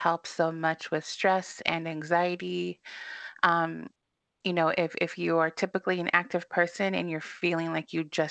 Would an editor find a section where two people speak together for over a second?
No

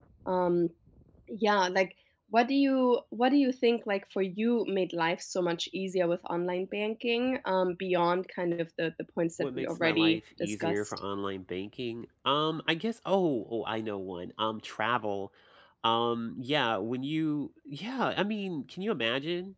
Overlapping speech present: Yes, from 9.4 s

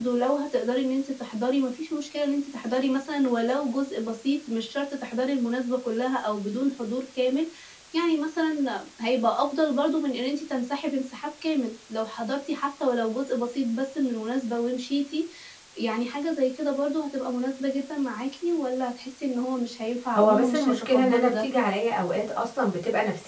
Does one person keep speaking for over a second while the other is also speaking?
Yes, from 20.1 s

